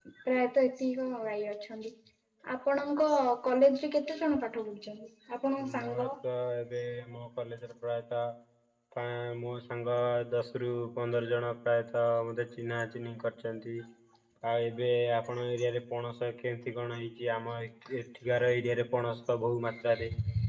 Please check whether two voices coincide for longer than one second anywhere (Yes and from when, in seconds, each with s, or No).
No